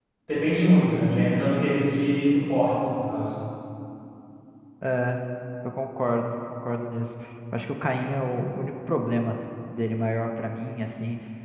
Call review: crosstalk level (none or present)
none